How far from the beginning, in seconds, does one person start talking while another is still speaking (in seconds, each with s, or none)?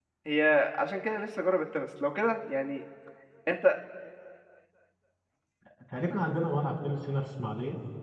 none